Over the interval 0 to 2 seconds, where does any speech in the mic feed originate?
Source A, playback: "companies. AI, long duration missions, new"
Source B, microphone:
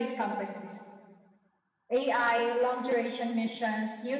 echo only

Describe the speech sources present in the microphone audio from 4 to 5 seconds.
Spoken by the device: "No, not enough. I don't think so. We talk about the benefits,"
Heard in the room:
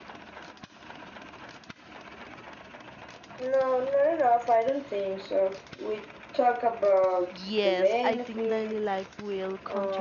echo only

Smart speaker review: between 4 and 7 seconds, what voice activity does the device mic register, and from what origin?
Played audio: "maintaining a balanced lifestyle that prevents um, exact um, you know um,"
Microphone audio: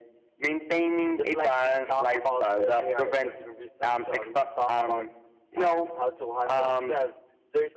both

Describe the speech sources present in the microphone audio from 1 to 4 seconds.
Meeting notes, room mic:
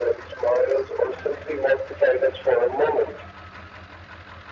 echo only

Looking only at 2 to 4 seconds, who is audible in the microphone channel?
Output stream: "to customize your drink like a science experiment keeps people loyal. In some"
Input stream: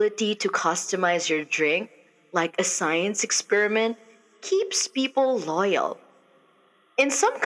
echo only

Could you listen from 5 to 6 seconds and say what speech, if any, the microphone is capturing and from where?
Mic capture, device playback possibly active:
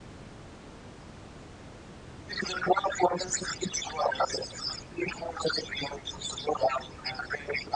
echo only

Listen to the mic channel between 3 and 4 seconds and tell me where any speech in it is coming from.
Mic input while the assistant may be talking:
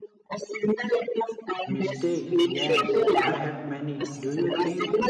both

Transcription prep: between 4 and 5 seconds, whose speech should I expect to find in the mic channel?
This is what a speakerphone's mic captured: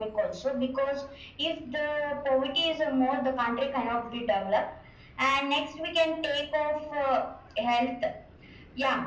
echo only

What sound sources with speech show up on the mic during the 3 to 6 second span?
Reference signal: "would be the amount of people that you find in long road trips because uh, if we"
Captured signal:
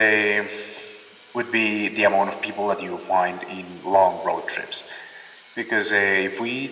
echo only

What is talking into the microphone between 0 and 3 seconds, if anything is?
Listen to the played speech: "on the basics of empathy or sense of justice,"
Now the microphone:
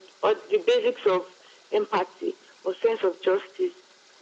echo only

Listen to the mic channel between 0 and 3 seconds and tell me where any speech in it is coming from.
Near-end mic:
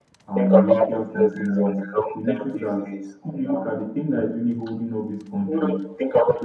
both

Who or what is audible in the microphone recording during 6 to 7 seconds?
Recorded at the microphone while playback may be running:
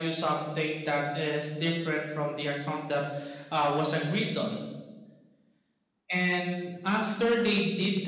echo only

